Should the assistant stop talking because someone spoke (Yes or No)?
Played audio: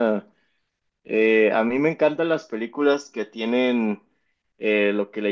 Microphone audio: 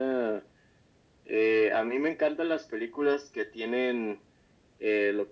No